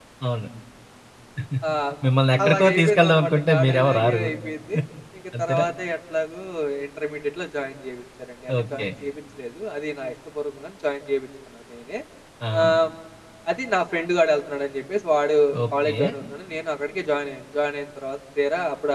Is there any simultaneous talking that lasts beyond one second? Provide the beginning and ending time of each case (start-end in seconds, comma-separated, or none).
2.4-4.2